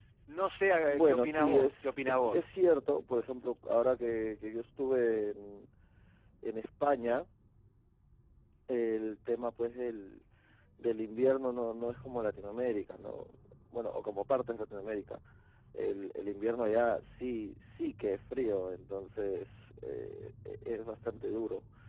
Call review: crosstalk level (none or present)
present